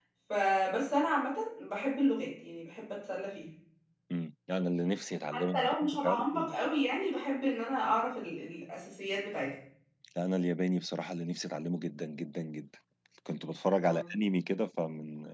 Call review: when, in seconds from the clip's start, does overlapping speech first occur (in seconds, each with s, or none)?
5.3 s